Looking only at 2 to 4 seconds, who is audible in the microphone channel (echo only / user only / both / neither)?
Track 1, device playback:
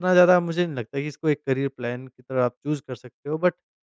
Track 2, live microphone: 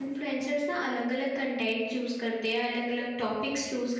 user only